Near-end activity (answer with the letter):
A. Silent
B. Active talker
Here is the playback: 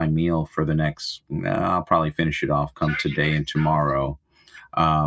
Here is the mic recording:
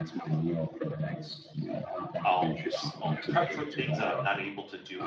B